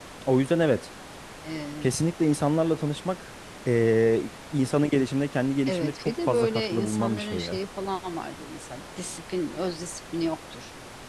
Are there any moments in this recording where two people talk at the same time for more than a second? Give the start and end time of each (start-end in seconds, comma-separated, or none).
5.7-7.6